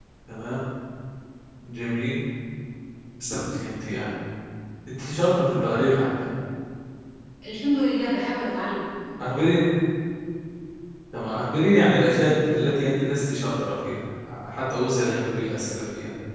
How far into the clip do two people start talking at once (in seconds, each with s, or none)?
none